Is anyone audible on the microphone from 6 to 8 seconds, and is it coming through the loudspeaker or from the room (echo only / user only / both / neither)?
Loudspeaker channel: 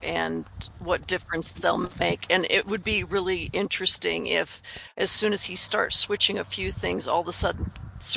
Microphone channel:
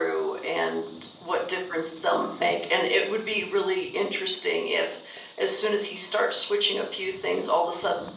echo only